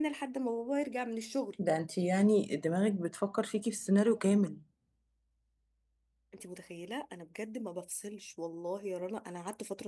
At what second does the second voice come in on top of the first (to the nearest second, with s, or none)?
none